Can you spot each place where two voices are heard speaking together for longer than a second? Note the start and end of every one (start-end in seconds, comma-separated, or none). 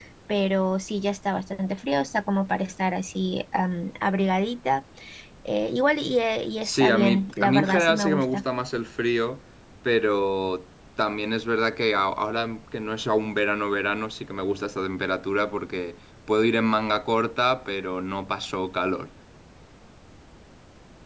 6.6-8.4